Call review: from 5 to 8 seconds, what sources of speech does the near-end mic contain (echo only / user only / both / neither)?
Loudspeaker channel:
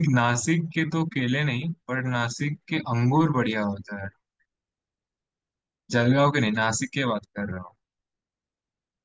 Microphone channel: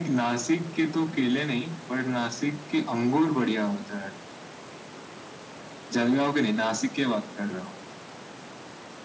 echo only